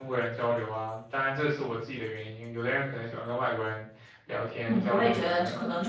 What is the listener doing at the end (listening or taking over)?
taking over